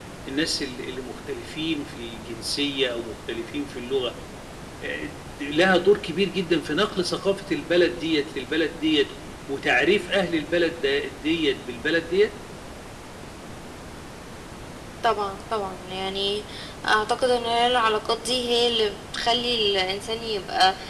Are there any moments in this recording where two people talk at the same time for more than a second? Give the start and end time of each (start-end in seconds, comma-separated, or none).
none